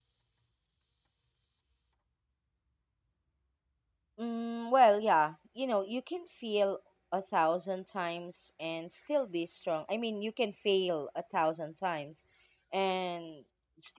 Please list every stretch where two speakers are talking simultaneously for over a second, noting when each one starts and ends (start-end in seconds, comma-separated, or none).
none